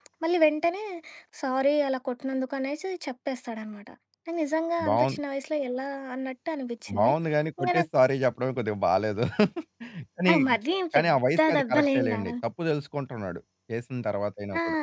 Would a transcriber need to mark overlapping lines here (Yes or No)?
Yes